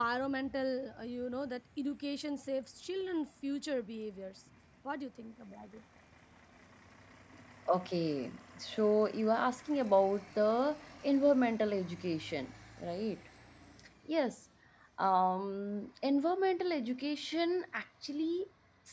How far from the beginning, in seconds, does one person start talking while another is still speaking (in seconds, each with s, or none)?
none